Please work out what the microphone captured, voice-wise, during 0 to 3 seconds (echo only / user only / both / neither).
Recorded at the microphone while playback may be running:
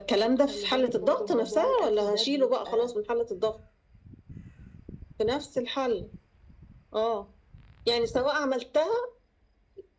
both